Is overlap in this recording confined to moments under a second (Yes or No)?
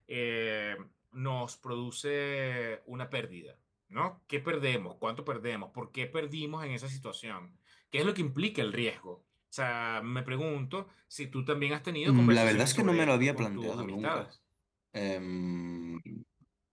No